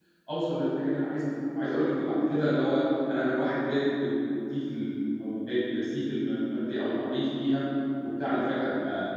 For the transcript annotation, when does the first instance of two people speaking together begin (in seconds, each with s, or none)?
none